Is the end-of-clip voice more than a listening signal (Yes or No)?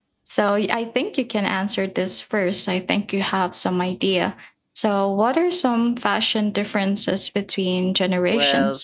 Yes